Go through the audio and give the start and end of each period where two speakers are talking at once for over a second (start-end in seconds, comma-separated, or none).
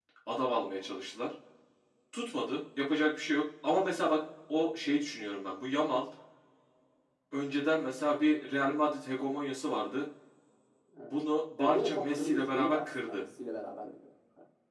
11.6-13.2